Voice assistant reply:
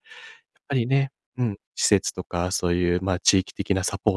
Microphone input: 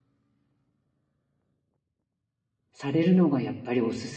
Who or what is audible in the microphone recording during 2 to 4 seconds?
user only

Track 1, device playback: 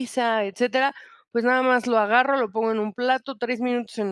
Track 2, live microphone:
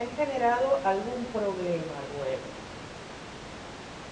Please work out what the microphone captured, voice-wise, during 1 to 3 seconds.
user only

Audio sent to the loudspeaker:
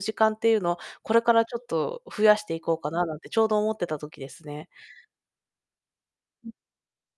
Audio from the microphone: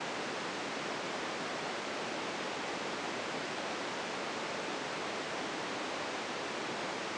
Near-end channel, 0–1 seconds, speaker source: neither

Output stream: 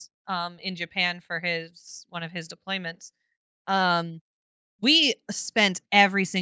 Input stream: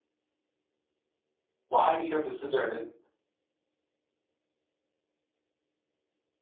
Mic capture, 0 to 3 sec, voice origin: user only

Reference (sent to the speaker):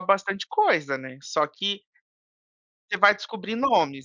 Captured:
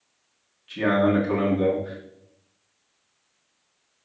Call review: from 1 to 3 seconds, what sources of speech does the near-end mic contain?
user only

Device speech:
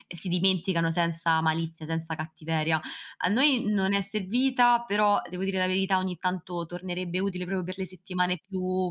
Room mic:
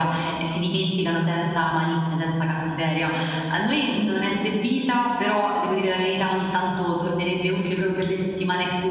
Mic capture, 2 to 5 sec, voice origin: echo only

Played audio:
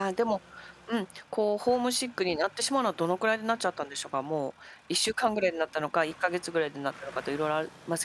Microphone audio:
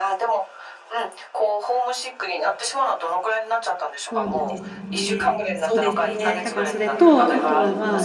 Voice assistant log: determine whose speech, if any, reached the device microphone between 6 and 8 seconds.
both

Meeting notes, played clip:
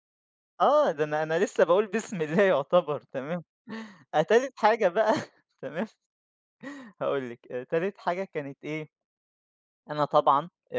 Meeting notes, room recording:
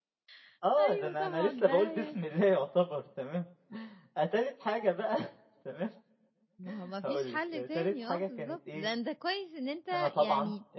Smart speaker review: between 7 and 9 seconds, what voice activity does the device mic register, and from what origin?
both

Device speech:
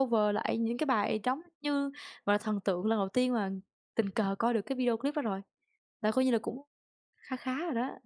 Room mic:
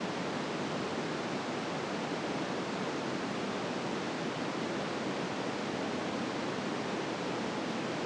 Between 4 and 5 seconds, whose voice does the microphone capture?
neither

